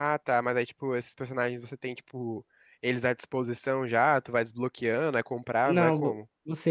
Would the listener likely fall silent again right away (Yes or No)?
No